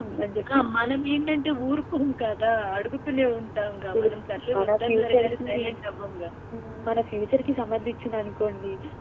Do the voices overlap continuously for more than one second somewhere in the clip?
Yes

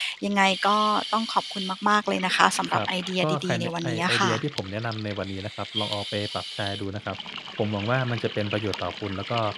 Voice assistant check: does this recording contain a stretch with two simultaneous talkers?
Yes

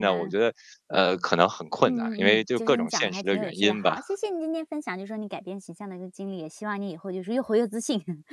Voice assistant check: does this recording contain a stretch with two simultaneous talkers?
Yes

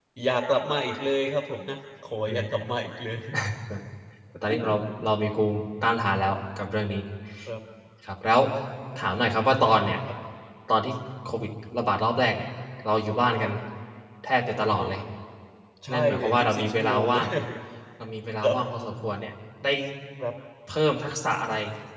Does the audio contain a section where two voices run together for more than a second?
Yes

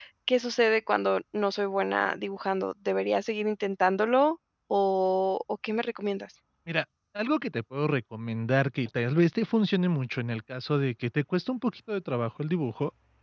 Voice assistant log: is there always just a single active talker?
Yes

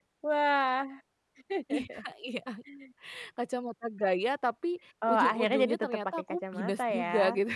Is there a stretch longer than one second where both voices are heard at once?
Yes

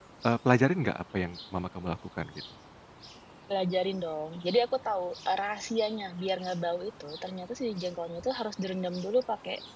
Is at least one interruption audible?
No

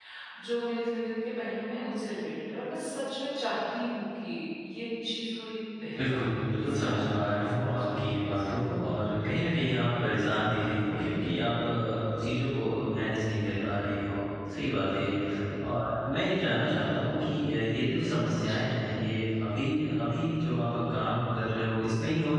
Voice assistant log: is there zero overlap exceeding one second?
No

